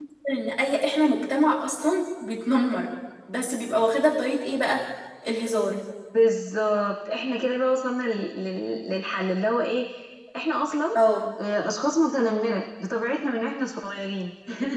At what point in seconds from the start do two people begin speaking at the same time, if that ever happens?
none

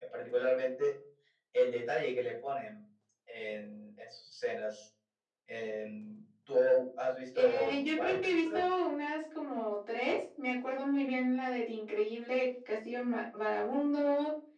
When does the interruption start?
7.3 s

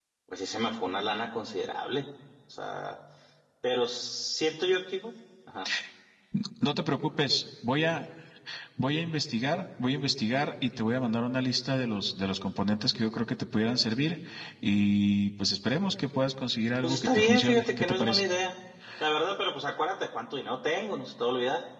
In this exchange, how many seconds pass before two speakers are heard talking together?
16.8 s

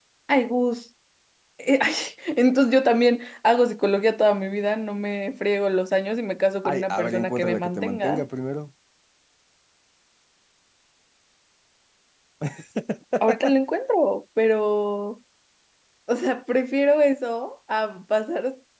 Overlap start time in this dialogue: 6.7 s

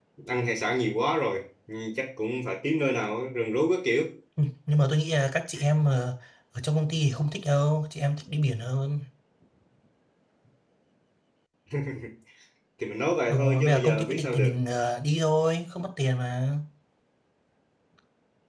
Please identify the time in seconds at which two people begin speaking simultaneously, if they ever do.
13.3 s

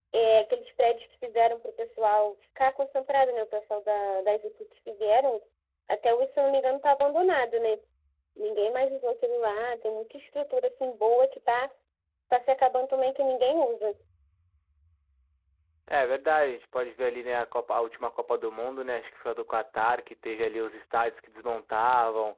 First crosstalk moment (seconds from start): none

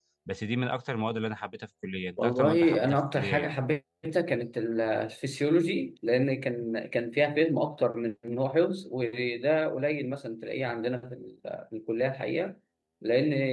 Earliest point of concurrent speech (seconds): 2.2 s

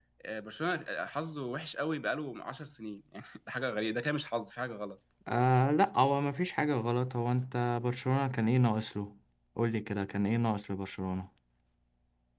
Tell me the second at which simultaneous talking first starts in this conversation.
none

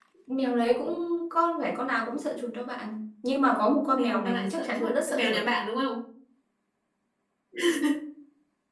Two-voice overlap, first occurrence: 3.9 s

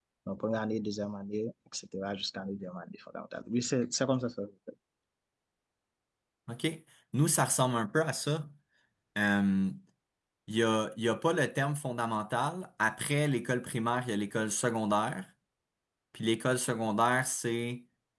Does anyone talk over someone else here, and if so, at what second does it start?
none

